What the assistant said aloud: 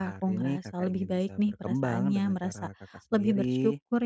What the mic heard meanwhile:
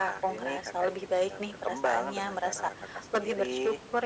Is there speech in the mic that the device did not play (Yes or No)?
No